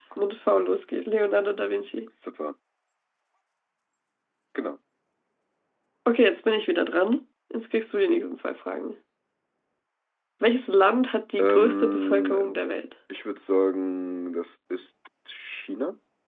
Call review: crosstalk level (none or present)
present